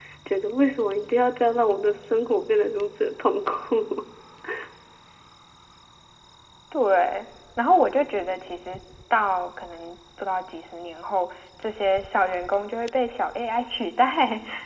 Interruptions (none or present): none